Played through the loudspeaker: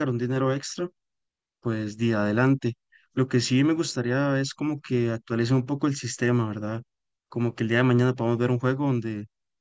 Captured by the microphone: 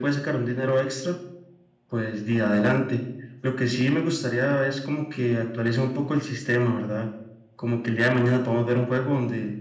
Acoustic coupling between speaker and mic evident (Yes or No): Yes